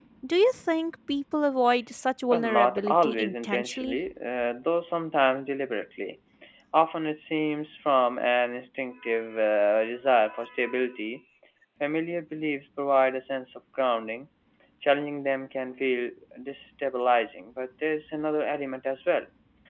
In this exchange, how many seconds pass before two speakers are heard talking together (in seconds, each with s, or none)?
2.3 s